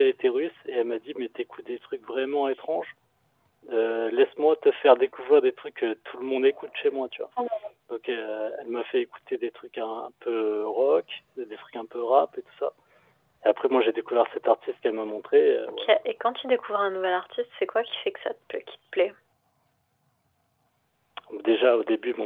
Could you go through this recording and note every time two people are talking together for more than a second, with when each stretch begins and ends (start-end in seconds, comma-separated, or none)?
none